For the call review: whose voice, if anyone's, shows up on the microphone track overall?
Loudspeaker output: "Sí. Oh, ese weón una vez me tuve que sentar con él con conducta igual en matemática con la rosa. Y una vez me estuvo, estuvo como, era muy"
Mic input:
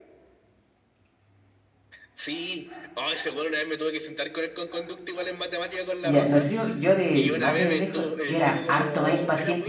both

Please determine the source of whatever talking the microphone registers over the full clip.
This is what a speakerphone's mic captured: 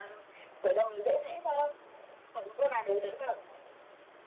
echo only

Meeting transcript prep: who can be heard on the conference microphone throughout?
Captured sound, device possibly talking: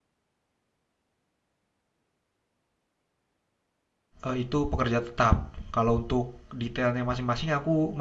user only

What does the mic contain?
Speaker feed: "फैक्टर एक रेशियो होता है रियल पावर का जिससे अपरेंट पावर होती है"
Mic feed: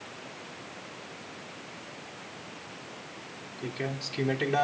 user only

